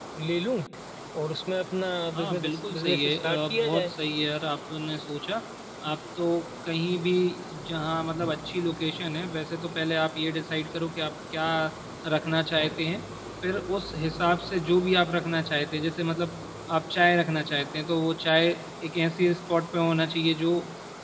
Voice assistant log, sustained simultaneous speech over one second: present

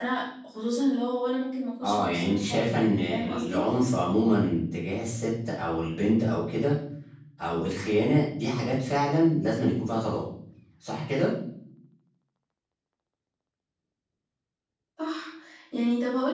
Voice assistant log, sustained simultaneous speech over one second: present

